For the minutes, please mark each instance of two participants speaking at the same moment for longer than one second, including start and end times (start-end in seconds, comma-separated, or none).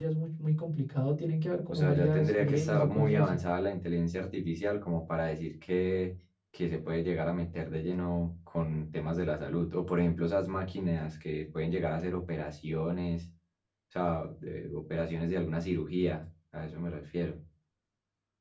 1.7-3.4